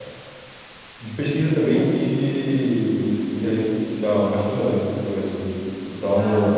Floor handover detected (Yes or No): No